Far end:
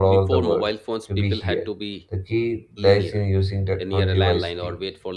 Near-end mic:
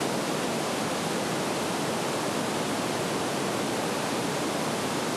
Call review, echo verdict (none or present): none